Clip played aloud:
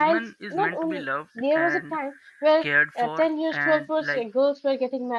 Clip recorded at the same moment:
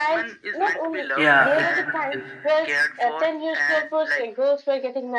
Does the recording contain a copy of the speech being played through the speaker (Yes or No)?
Yes